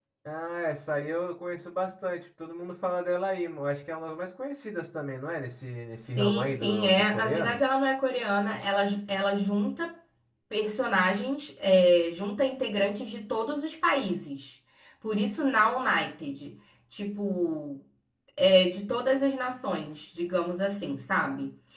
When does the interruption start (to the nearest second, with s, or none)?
6 s